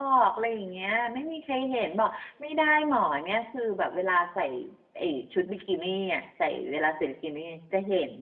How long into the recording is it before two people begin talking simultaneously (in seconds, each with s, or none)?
none